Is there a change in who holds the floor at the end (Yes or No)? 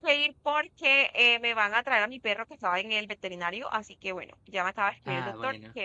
No